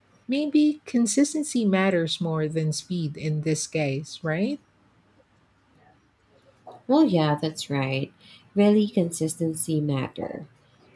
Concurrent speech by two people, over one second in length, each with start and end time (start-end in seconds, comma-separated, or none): none